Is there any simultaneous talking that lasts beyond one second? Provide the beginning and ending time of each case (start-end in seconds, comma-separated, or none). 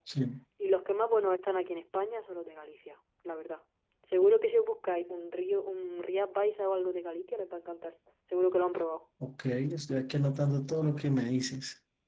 none